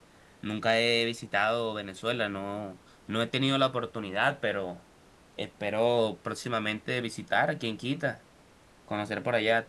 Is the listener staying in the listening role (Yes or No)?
Yes